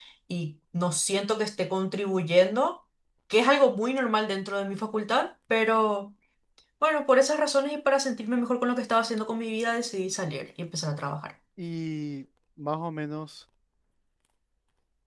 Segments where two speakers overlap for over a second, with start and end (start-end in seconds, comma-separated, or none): none